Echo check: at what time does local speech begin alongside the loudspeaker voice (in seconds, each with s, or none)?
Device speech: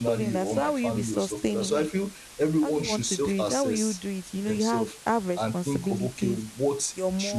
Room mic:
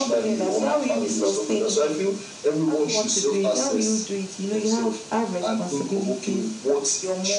none